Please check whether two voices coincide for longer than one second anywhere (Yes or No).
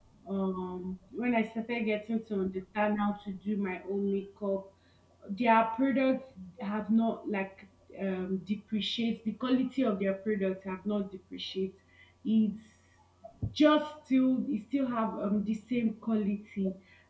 No